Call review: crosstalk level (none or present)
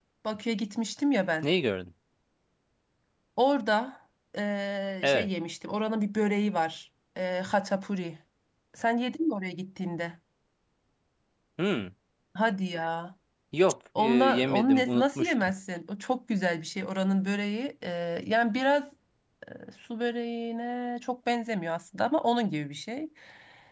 present